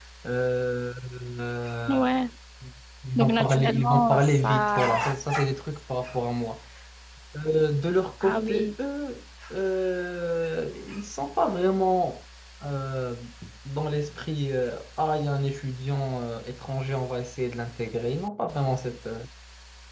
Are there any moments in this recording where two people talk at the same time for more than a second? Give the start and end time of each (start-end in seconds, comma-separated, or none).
3.2-5.1